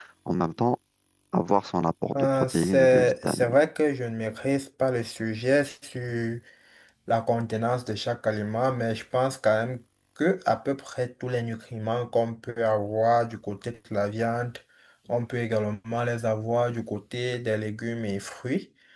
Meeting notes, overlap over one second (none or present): present